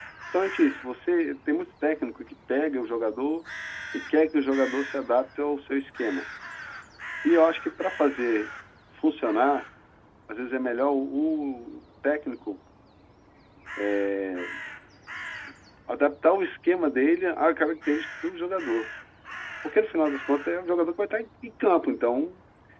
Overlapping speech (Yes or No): No